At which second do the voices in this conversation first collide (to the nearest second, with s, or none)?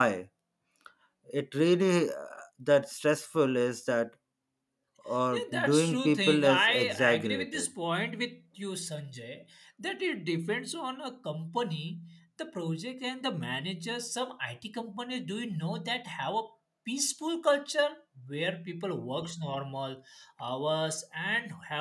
5 s